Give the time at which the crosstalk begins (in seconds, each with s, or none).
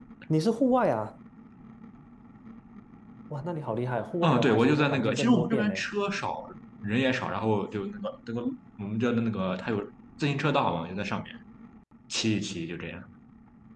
4.2 s